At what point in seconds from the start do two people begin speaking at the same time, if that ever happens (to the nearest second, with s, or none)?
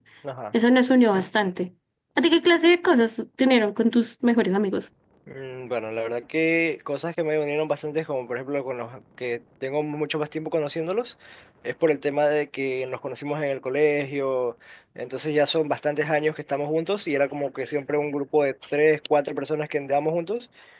none